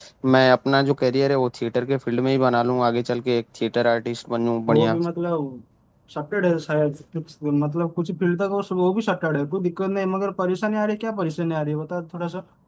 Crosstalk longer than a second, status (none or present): none